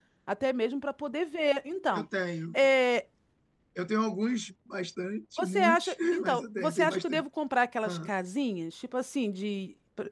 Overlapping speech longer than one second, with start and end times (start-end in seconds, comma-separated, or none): 5.4-7.2